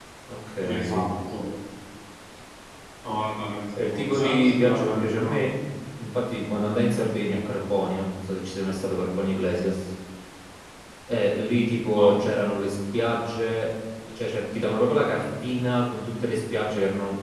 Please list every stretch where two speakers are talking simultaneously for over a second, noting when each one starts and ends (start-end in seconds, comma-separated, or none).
3.8-5.3